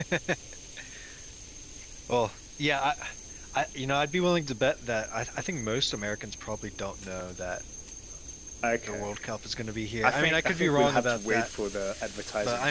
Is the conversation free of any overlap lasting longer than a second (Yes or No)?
No